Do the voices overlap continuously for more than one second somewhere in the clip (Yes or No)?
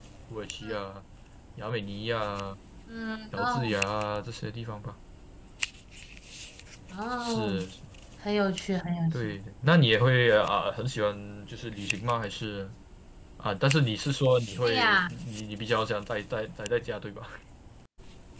No